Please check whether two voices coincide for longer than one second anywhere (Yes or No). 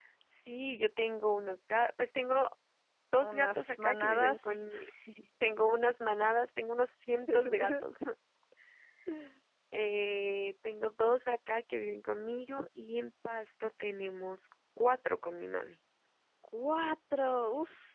Yes